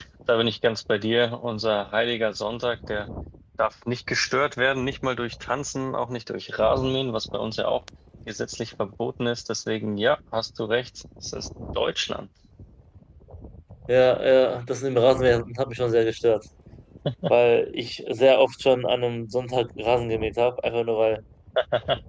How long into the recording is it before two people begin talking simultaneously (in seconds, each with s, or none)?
none